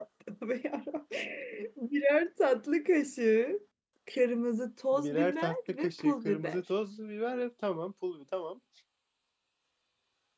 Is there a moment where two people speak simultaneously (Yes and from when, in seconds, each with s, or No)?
Yes, from 4.9 s